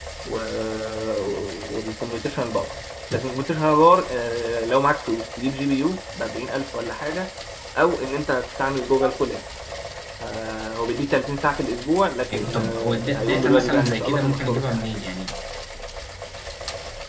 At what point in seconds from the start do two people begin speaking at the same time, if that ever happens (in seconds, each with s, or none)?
12.3 s